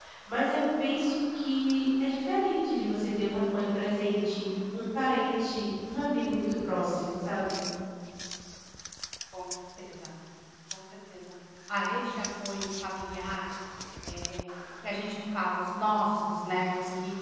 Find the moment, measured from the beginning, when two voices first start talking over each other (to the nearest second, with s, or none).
none